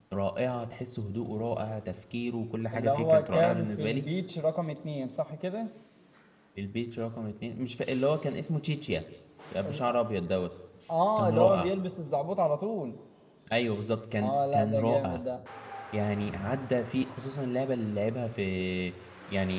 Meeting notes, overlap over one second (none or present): present